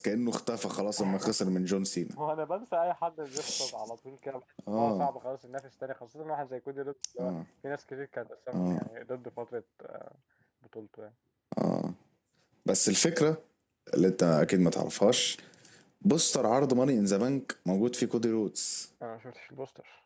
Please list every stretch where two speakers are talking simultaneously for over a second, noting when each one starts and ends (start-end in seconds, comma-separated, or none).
none